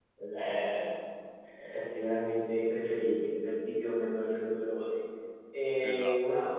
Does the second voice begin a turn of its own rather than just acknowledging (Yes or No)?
No